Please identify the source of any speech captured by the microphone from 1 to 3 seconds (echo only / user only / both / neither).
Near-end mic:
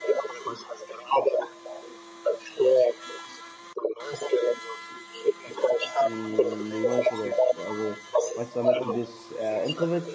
echo only